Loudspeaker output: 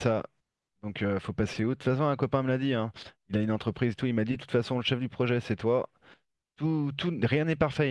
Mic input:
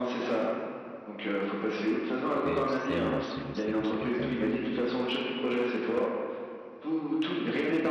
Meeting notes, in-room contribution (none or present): present